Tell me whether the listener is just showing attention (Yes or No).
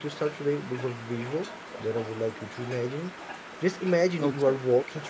Yes